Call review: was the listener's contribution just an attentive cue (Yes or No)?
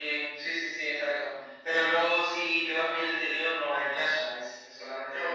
No